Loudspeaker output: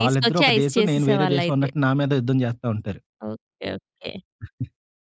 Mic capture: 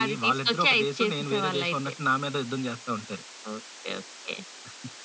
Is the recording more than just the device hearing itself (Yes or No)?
No